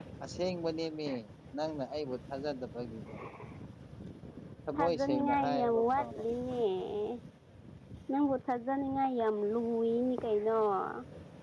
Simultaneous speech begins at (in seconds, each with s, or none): 4.7 s